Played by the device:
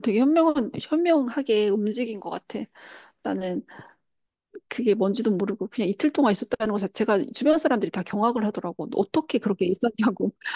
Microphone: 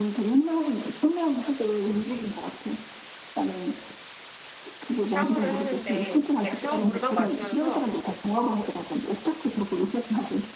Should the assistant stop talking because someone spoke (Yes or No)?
Yes